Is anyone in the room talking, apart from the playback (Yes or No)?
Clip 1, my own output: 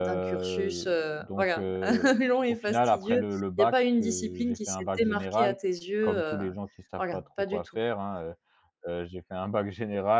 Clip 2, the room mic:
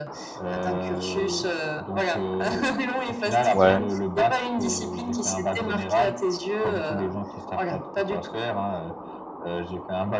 Yes